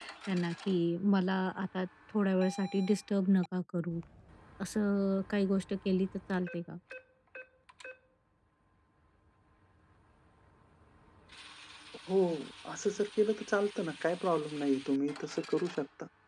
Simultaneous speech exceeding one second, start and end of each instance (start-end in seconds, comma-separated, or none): none